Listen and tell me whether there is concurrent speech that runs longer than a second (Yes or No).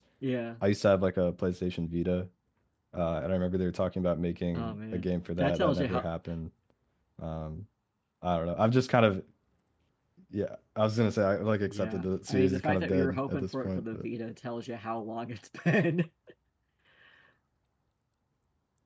Yes